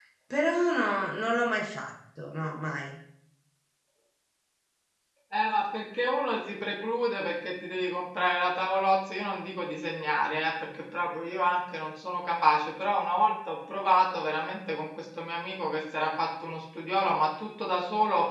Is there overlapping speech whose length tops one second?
No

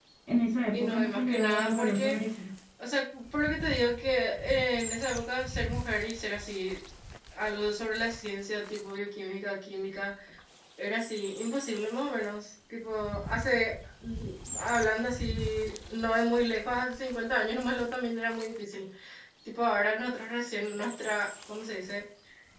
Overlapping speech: Yes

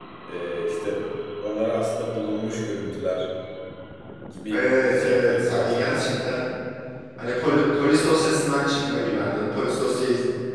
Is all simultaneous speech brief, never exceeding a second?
No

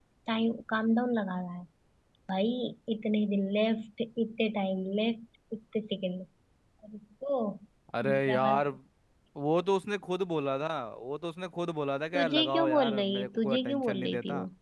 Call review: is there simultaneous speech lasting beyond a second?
Yes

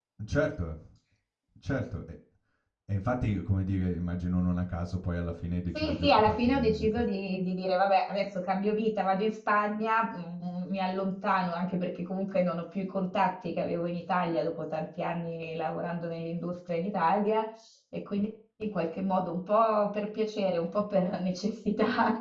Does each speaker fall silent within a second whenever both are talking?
No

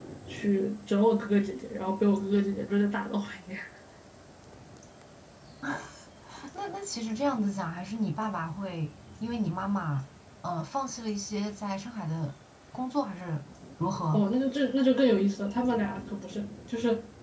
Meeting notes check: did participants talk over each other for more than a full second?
No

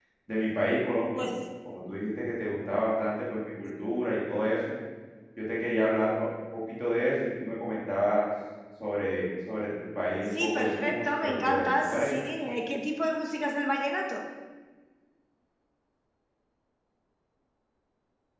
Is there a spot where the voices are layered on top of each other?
Yes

